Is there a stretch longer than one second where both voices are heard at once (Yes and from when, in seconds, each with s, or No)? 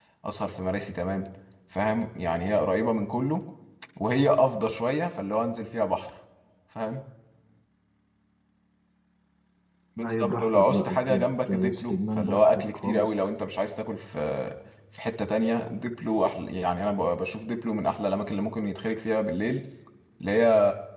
Yes, from 10.0 s